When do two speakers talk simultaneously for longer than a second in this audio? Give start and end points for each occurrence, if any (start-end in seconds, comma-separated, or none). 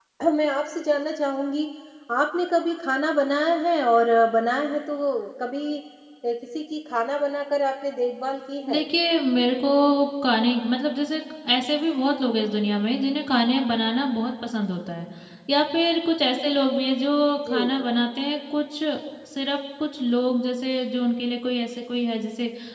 none